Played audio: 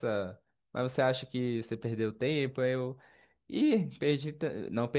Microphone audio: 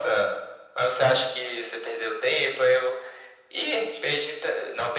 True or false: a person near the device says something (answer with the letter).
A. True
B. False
B